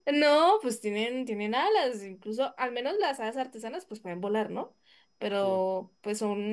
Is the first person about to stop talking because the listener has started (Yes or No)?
No